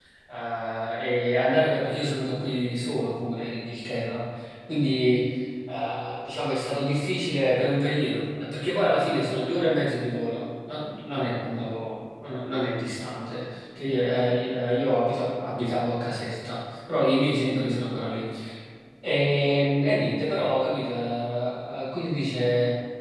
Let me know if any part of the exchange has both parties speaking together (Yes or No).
No